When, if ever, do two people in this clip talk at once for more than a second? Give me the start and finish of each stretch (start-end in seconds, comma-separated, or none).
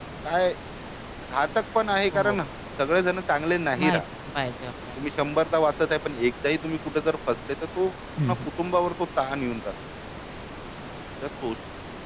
none